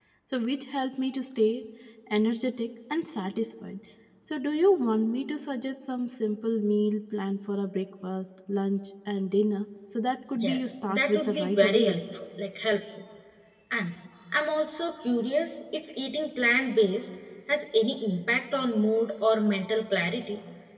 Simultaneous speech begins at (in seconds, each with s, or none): 10.4 s